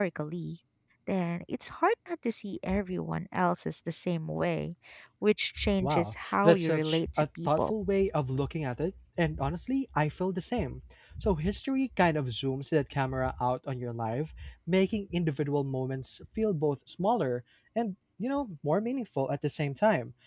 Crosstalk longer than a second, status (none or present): present